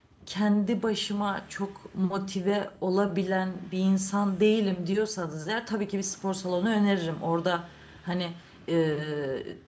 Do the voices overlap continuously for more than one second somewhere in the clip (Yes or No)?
No